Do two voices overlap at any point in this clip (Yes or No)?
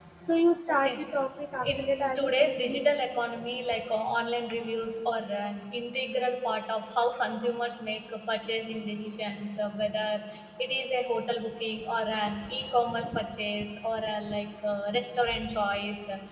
Yes